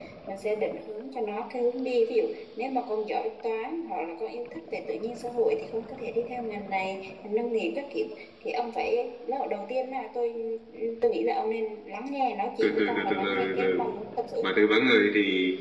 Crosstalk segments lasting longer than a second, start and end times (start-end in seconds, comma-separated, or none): 12.6-13.8